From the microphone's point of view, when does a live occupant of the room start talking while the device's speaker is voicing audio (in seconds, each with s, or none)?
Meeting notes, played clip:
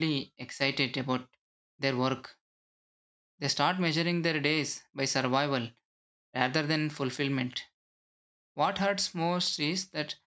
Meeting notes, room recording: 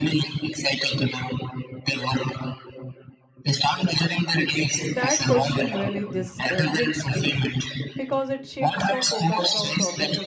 4.9 s